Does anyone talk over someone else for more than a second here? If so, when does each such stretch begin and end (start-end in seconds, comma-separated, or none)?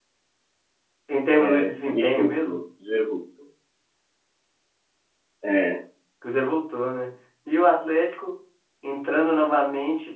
1.4-2.6